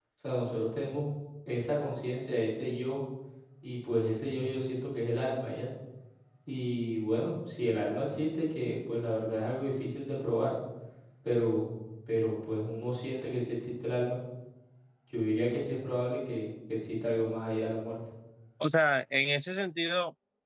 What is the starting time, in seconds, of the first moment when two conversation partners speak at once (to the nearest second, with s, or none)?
none